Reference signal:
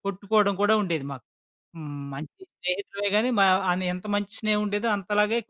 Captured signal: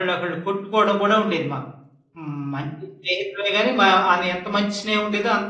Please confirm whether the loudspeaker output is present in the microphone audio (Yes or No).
Yes